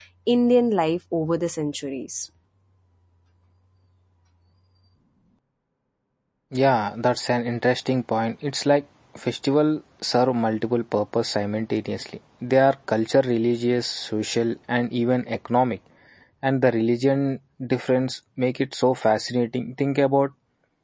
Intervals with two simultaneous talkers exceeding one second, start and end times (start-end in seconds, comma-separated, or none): none